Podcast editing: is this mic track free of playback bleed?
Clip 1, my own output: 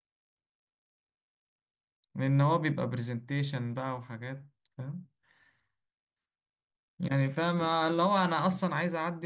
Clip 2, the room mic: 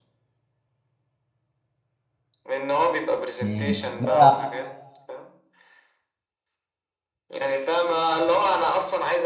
No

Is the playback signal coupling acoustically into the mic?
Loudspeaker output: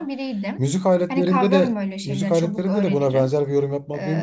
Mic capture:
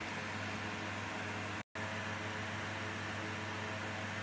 No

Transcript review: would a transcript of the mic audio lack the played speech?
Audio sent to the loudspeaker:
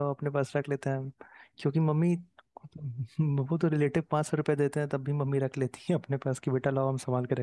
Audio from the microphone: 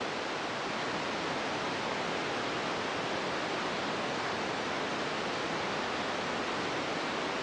Yes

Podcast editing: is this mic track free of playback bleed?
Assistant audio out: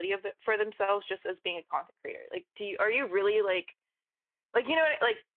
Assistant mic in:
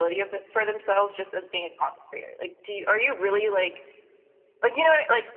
No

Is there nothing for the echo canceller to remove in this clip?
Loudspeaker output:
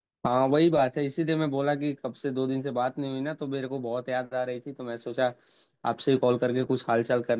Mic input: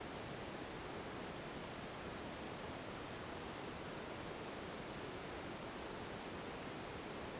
Yes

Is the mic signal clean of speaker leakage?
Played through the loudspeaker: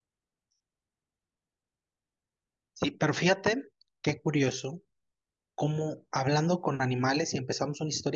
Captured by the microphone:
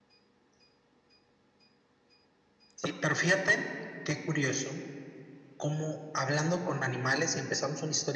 No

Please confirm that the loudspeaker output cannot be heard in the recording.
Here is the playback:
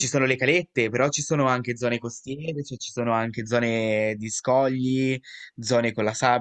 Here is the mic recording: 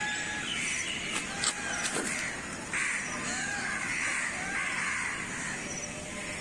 Yes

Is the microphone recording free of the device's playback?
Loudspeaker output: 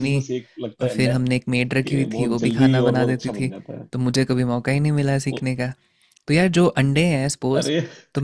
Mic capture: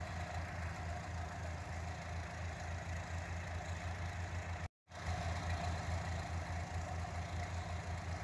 Yes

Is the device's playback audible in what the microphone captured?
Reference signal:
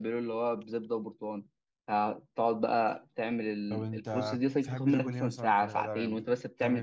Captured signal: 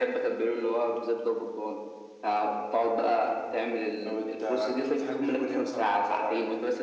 Yes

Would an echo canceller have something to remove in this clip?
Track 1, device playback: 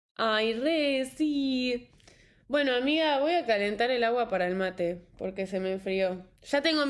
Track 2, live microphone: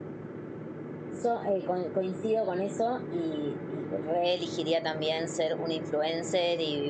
No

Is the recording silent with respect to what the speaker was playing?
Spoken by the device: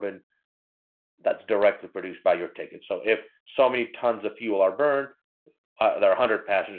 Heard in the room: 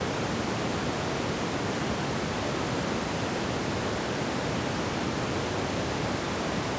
Yes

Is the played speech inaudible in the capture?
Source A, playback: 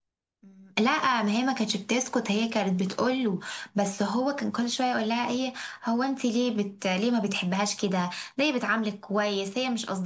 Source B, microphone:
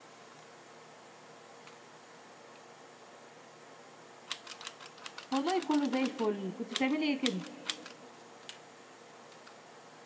Yes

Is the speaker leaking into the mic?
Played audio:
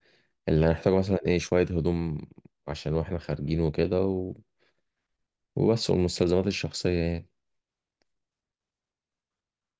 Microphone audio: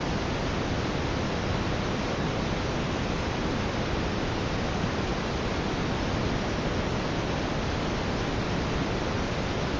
No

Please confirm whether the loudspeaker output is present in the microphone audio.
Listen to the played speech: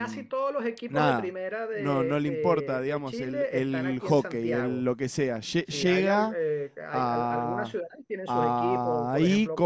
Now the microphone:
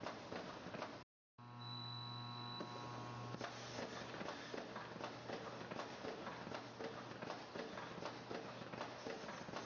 No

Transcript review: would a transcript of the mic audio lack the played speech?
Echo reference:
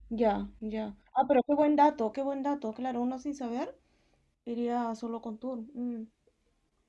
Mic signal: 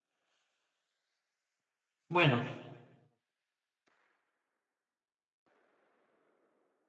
Yes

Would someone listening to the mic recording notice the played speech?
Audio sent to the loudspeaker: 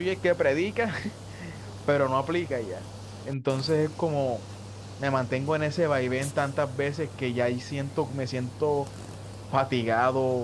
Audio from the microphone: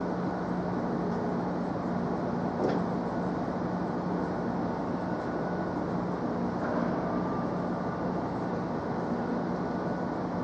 No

